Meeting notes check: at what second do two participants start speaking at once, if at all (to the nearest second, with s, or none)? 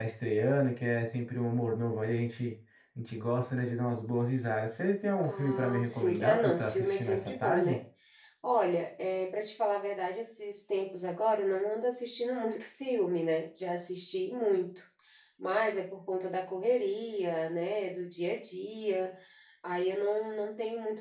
5 s